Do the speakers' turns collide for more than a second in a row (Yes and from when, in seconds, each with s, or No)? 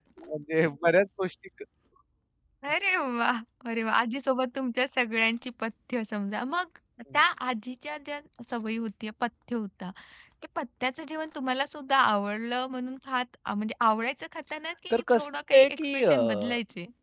Yes, from 14.9 s